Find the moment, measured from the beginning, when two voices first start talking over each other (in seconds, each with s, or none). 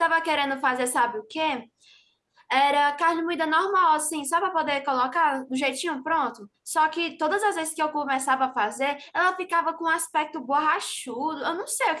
none